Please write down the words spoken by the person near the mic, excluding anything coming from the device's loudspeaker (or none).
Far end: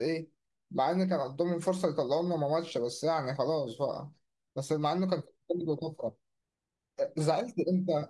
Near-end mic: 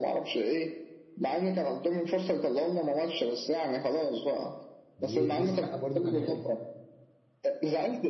و... والسقا برضو كان حلو